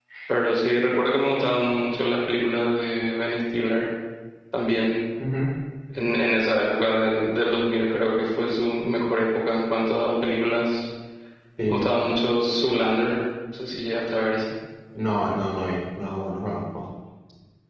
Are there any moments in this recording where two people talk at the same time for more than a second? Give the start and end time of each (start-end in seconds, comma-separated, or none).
none